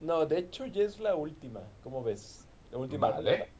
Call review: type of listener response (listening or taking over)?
taking over